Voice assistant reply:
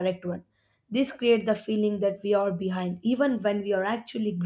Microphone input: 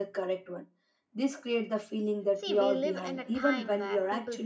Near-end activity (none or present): present